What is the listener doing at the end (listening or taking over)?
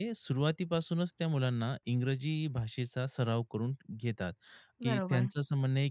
listening